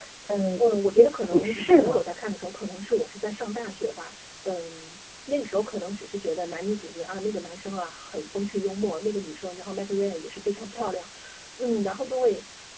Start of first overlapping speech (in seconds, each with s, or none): 0.7 s